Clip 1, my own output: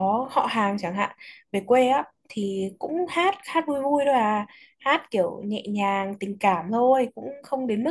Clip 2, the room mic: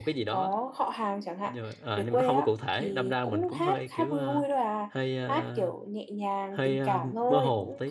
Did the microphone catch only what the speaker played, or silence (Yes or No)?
No